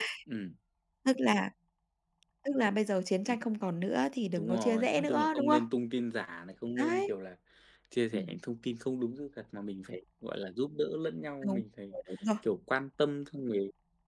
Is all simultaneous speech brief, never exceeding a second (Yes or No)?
No